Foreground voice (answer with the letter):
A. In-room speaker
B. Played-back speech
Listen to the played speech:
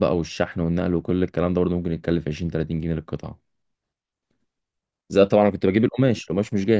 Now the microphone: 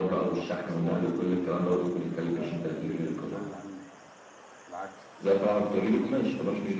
B